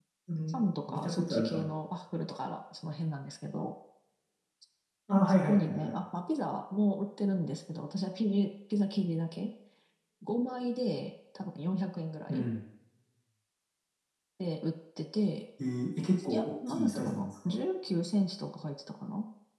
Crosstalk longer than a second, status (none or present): present